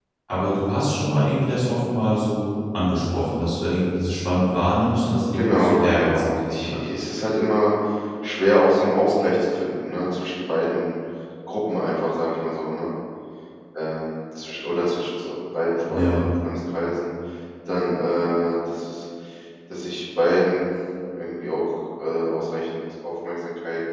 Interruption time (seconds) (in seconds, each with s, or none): 5.3 s